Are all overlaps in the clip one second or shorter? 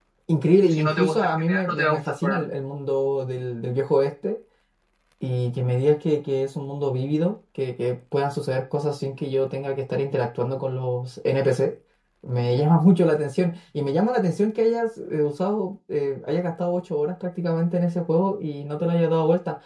No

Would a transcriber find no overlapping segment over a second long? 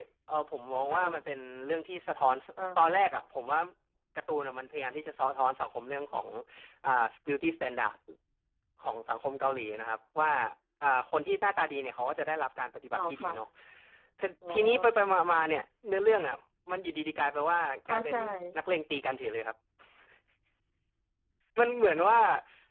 Yes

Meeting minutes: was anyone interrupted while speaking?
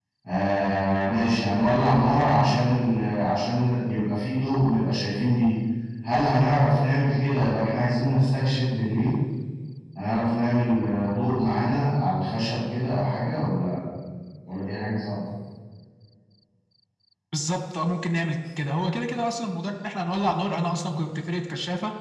No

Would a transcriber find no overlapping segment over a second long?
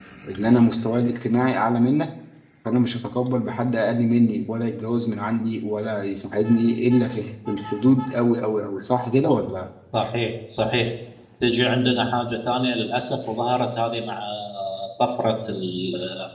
Yes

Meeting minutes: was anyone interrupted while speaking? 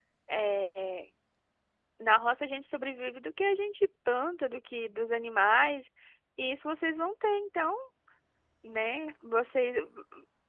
No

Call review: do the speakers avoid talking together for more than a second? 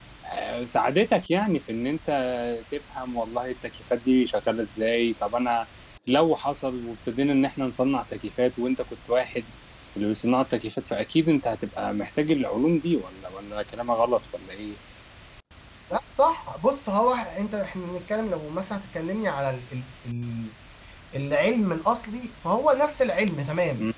Yes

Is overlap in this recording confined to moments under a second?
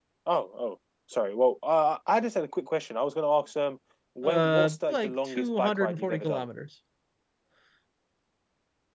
No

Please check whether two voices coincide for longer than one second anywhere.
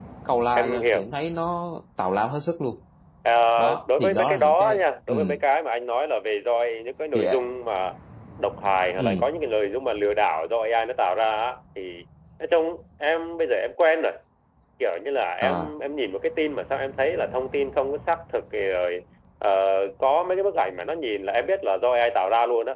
Yes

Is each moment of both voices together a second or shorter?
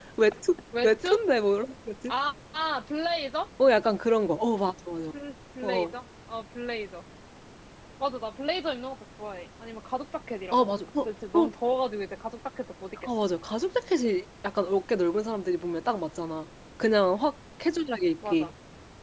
Yes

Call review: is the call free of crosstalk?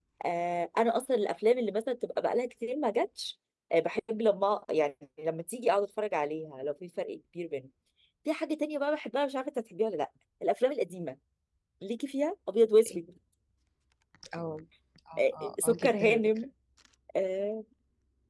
No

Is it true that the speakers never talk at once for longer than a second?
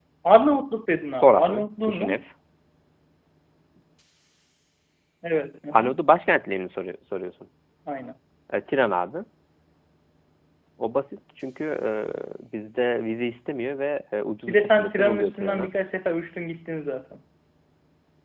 No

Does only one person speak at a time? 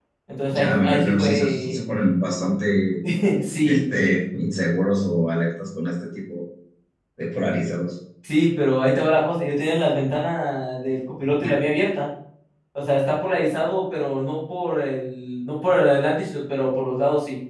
No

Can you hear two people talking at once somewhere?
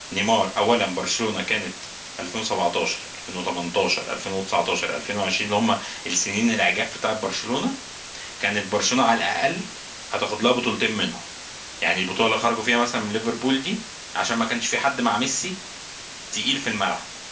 No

